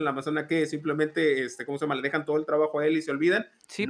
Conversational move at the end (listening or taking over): taking over